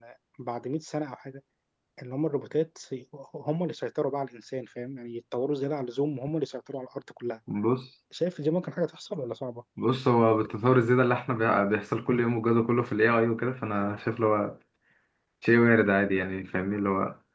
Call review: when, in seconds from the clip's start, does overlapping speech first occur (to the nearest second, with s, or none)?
none